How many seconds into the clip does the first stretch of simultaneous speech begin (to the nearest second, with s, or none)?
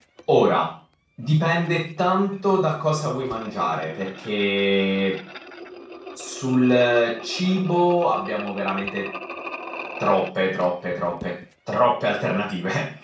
none